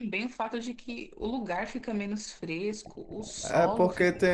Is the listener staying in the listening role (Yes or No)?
No